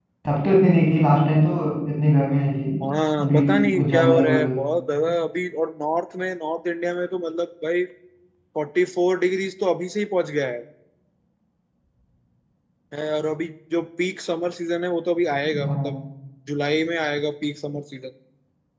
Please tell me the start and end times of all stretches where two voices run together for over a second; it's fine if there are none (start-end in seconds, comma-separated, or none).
3.2-4.6